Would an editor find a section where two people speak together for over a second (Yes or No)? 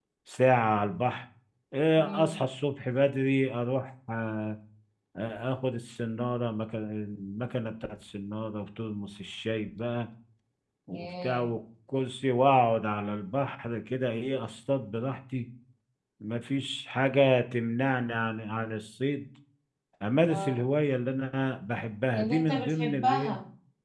Yes